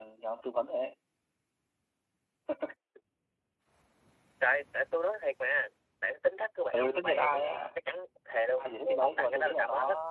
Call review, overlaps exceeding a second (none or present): present